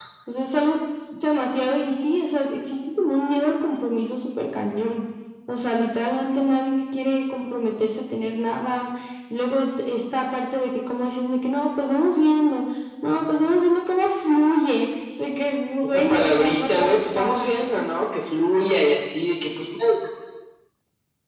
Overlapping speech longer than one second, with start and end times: 15.8-17.5

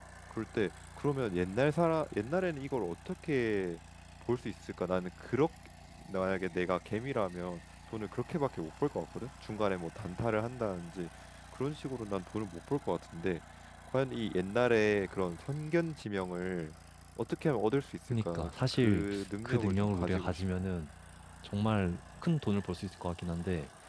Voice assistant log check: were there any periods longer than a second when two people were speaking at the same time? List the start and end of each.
18.2-20.4

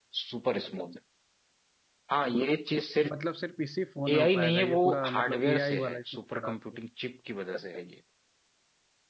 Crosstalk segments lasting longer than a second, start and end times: 4.1-6.5

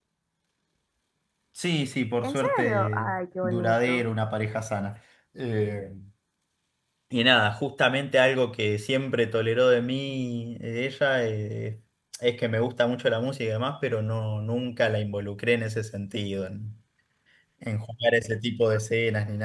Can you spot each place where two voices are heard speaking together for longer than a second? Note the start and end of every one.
2.2-4.0

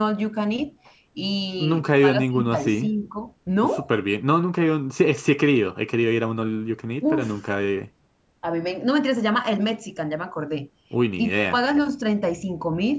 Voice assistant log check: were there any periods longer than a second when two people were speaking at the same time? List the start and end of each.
1.6-2.9

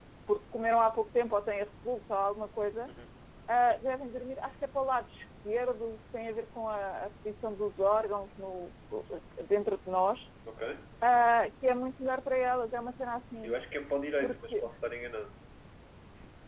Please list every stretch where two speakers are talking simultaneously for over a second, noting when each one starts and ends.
none

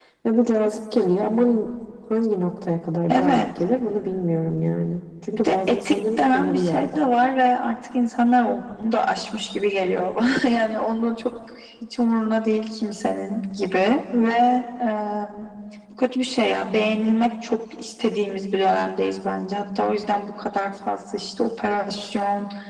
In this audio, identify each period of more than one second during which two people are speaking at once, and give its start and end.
5.4-7.0

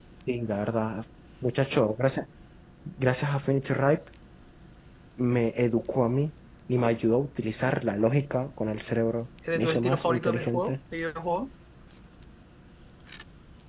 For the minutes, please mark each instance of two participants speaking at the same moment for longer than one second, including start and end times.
9.6-10.8

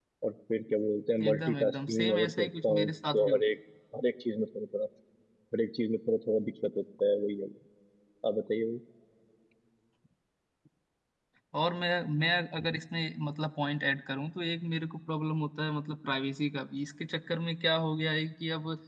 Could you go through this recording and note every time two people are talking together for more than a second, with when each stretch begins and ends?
1.2-3.4

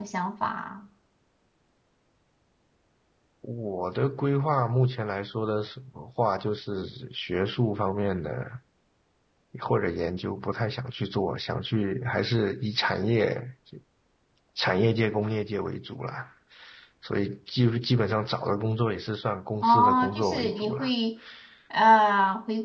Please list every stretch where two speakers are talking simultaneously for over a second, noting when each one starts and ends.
19.6-20.9

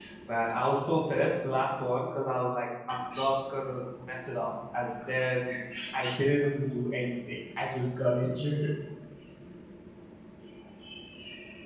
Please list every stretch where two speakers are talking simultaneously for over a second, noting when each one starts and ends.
none

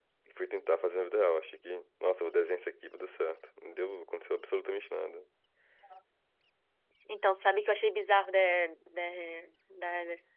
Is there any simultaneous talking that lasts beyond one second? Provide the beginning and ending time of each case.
none

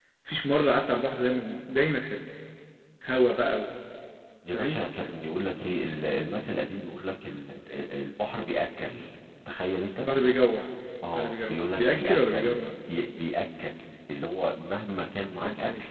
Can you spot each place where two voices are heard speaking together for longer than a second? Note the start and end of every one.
11.2-12.6

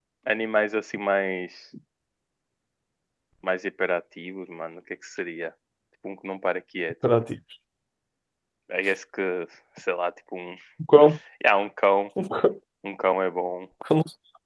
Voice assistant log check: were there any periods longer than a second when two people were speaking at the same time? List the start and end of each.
none

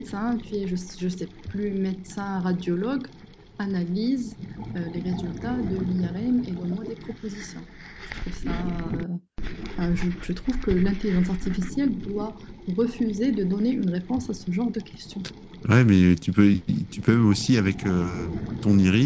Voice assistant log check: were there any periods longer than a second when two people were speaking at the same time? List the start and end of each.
none

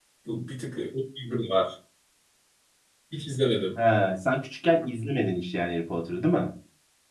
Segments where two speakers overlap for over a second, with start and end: none

